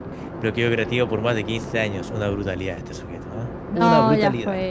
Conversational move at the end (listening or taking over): taking over